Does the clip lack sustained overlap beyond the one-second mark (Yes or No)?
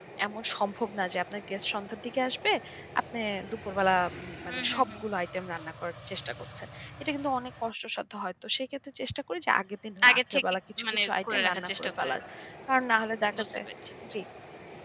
No